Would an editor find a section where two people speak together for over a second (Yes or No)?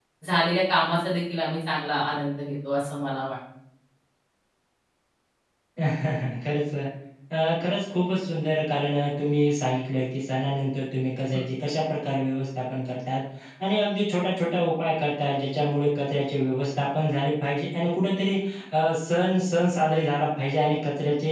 No